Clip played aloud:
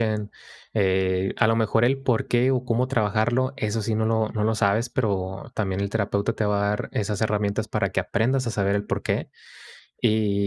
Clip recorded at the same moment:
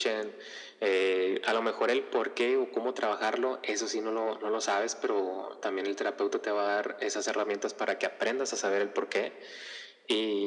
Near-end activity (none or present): none